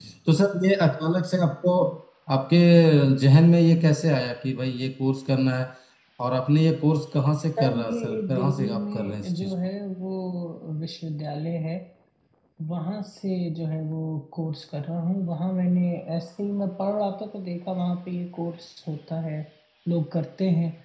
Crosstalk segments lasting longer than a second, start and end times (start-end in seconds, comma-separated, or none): 7.6-9.5